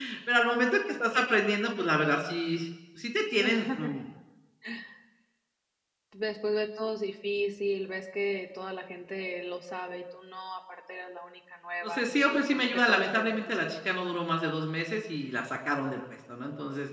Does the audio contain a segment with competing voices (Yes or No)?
Yes